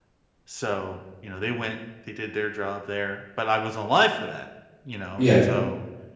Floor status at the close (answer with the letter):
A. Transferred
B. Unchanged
B